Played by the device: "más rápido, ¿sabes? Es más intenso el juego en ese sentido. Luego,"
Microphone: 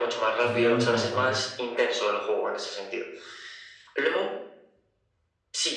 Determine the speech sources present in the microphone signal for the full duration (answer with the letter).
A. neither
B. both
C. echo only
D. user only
B